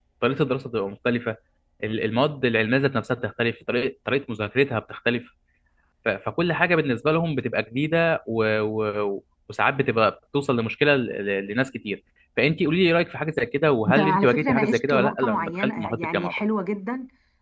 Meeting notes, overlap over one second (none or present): present